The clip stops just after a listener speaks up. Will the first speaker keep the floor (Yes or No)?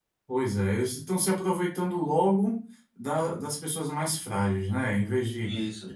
Yes